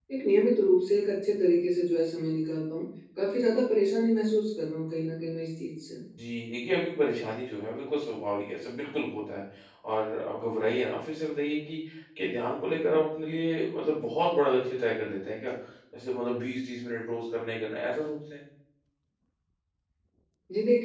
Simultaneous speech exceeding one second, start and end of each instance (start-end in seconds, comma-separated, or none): none